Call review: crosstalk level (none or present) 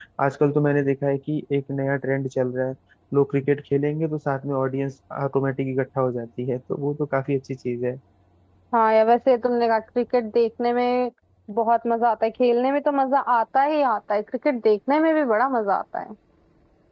none